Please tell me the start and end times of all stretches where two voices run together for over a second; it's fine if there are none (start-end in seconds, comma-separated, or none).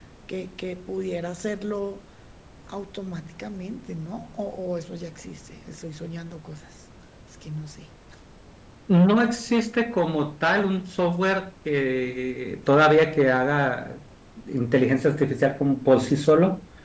none